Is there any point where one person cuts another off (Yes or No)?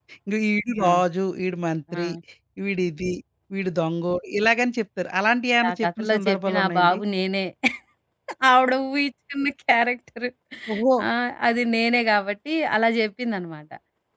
Yes